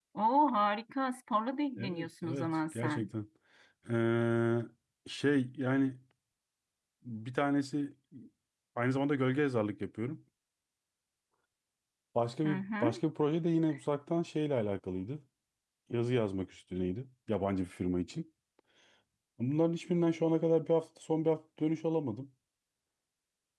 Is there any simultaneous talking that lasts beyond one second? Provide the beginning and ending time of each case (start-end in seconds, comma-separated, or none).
1.8-3.1